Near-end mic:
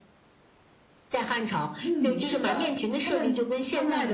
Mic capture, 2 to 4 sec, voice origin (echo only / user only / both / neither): both